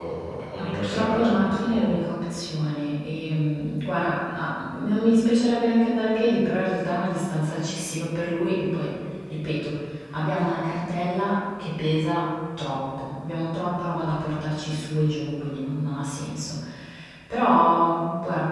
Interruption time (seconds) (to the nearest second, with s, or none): 1 s